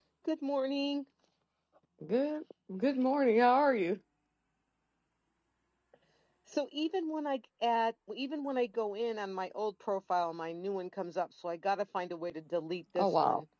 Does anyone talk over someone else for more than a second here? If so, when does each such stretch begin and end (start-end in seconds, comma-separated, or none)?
none